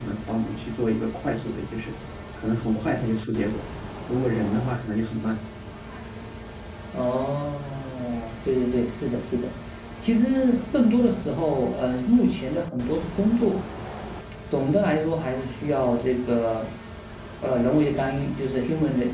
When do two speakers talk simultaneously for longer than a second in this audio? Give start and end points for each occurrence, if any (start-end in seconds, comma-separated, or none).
none